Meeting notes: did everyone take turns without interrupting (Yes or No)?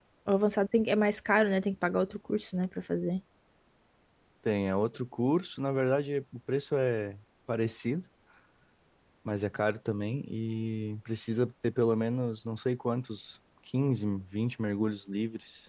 Yes